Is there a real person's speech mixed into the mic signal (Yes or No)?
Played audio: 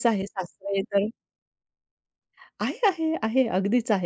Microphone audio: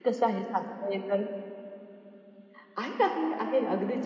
No